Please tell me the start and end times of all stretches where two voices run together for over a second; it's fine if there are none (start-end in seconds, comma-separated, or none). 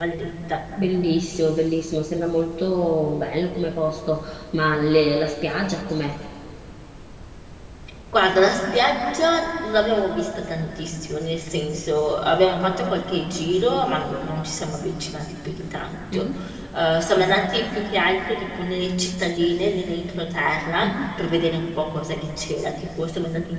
none